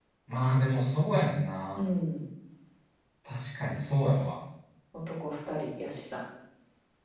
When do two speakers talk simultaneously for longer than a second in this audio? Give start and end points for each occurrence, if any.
none

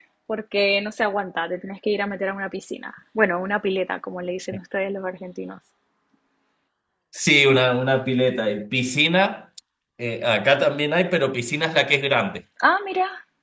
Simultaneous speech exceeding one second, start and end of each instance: none

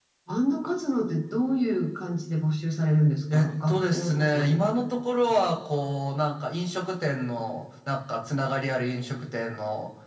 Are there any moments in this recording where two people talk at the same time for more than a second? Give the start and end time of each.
3.3-4.7

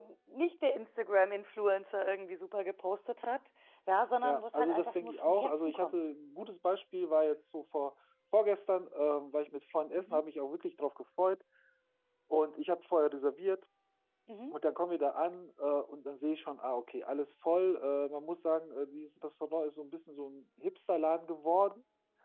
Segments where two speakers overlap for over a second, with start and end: 4.2-6.0

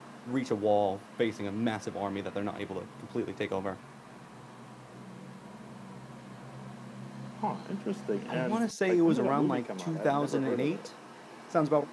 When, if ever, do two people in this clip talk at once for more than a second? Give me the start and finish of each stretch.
8.3-10.9

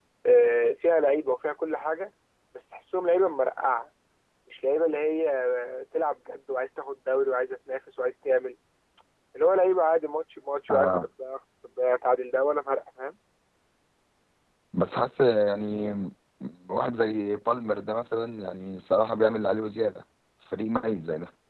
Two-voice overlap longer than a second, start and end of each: none

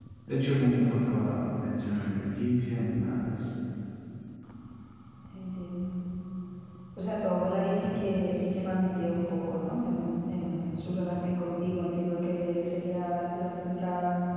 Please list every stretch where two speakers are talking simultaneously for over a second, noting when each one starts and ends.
none

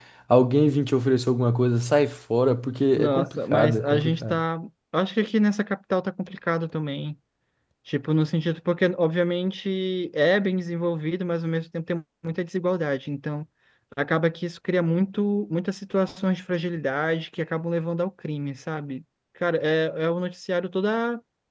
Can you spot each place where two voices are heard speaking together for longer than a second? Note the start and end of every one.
3.0-4.4

